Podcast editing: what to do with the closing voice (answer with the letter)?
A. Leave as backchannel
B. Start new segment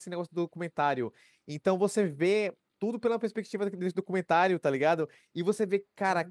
A